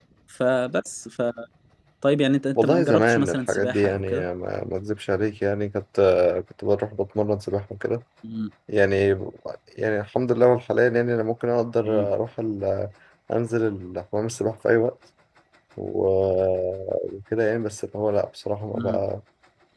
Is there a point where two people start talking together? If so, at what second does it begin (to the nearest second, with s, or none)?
3 s